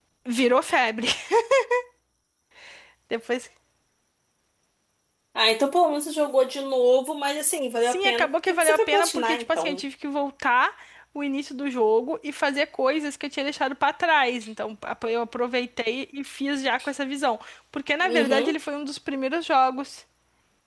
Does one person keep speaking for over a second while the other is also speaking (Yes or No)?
Yes